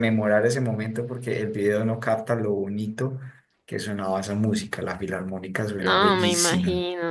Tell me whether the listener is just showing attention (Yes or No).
No